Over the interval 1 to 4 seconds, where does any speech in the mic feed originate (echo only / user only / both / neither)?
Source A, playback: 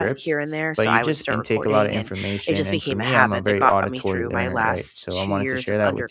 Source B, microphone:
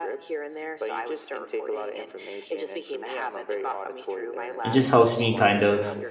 echo only